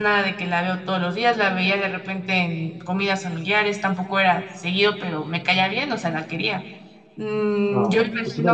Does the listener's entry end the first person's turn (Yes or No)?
Yes